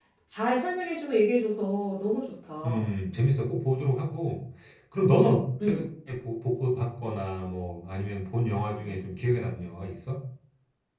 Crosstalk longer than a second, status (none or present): none